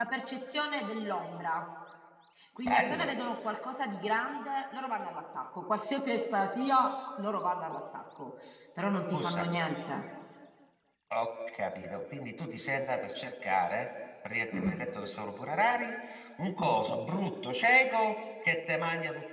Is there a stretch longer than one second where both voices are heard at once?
No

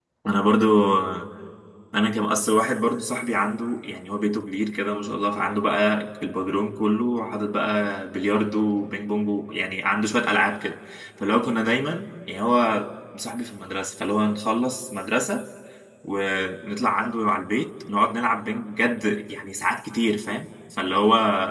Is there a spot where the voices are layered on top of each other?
No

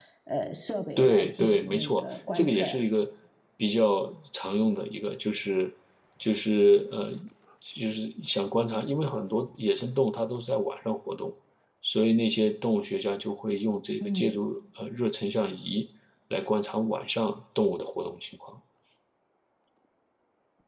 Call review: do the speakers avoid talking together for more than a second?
No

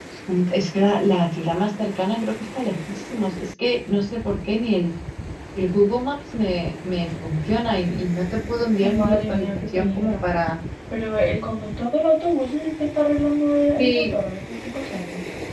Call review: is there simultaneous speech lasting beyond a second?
Yes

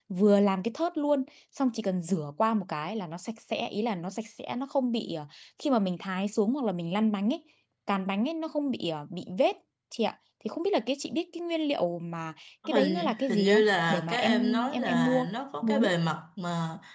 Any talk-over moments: Yes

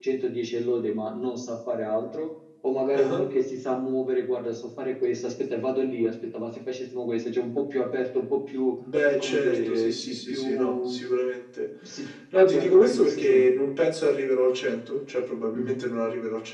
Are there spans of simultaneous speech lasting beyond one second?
Yes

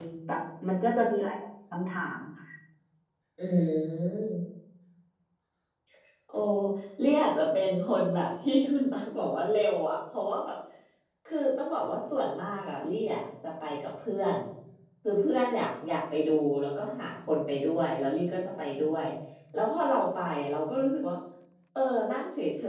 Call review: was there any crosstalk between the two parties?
No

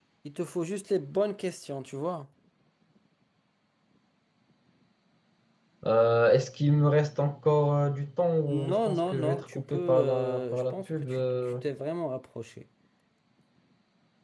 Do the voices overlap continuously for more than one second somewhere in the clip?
Yes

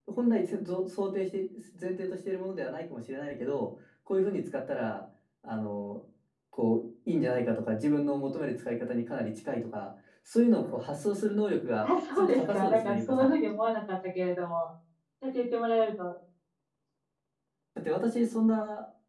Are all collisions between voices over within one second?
No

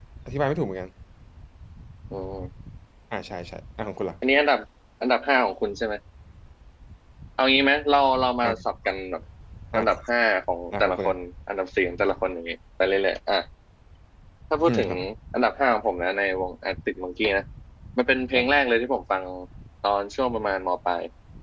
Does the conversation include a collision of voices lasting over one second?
No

